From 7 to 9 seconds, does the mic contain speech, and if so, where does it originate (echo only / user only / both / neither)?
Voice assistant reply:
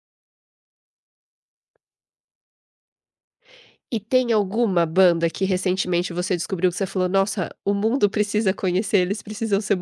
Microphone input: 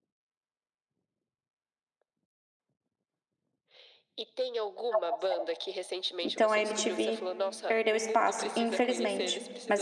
both